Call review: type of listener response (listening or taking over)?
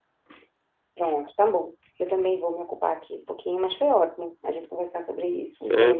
taking over